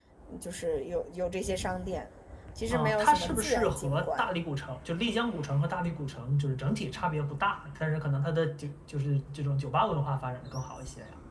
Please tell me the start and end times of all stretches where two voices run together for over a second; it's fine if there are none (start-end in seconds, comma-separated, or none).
2.7-4.3